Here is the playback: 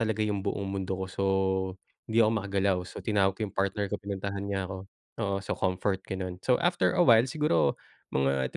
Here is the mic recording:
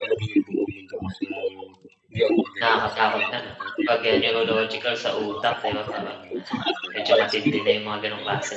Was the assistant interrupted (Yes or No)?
Yes